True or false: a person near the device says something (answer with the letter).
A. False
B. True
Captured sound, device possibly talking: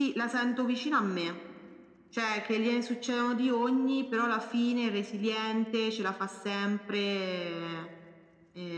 A